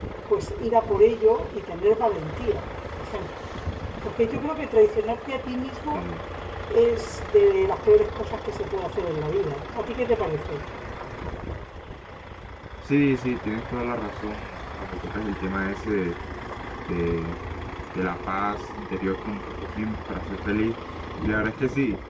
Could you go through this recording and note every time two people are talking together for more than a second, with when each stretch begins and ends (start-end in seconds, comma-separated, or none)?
none